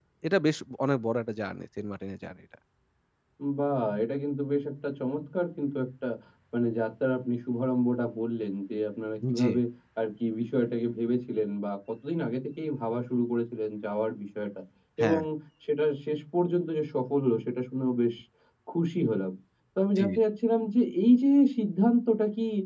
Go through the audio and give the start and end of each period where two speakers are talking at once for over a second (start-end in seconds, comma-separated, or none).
none